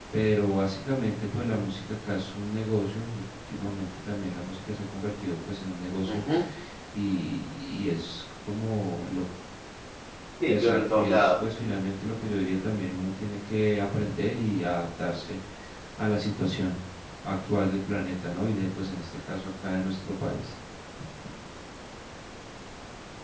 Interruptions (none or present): present